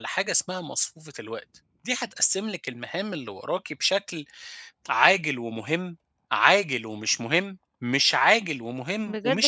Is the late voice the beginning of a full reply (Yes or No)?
Yes